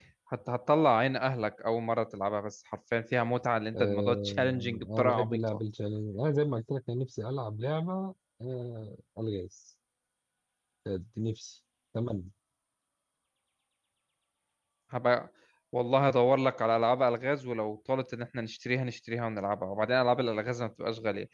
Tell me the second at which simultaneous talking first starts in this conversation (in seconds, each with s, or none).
3.7 s